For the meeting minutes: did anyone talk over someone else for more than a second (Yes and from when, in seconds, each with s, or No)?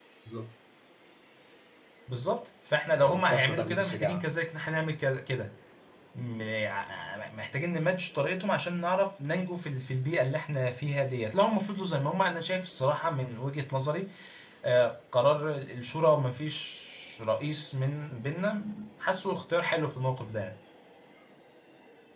Yes, from 3.0 s